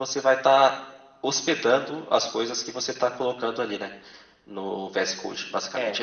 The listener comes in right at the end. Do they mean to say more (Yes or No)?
Yes